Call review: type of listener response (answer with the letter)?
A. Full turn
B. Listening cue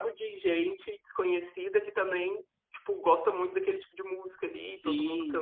A